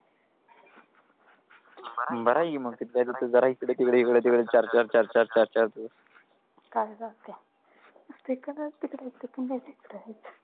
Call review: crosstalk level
none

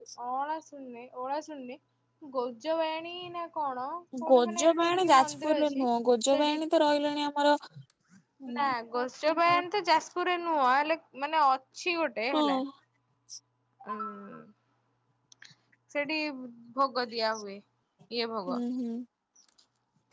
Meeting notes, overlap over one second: present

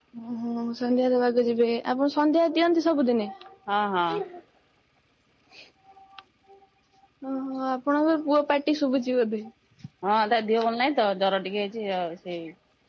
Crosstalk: none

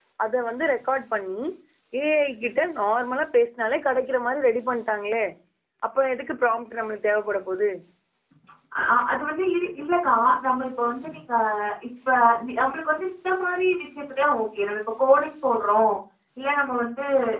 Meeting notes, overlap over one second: none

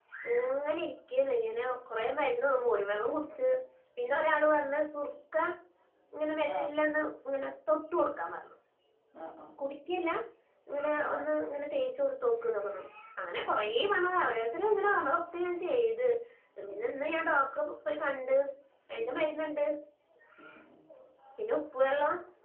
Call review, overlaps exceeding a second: none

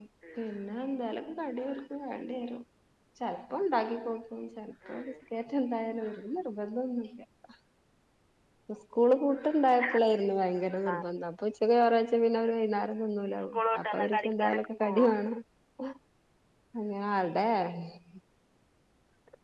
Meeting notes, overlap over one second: present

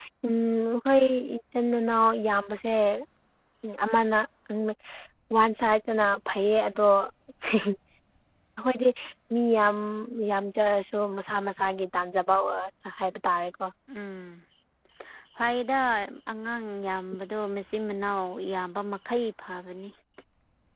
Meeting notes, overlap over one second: none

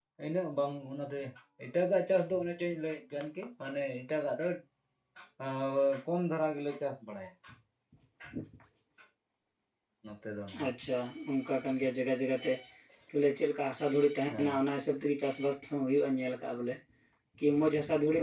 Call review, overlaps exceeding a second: none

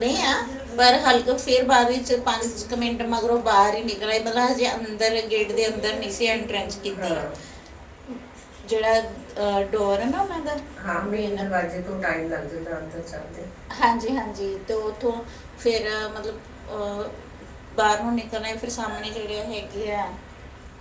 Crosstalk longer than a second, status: none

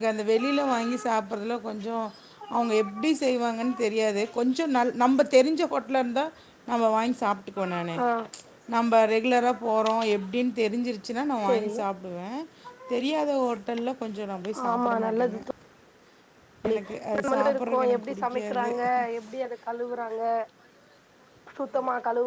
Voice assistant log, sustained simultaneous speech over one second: present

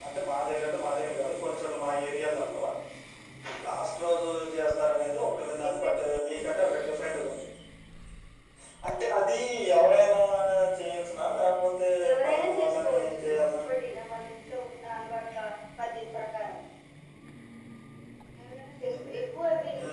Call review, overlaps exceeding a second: present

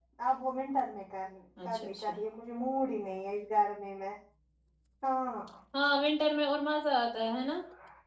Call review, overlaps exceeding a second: none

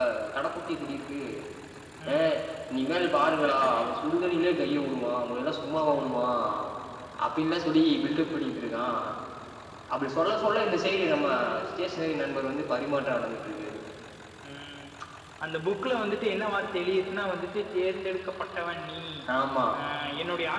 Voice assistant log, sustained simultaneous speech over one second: none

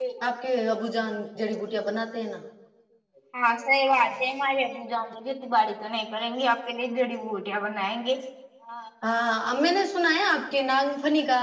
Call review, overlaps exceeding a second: none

